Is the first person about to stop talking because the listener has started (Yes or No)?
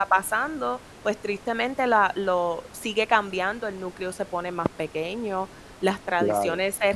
No